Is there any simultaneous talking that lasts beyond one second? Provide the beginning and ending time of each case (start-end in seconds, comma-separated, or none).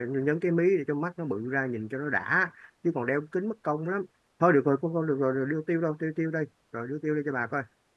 none